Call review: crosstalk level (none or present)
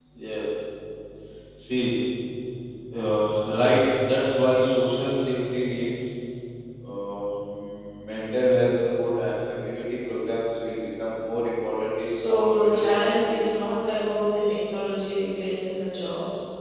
present